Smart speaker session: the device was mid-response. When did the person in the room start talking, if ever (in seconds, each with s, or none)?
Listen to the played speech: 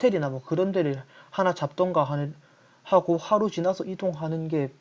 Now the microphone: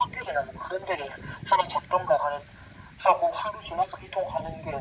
none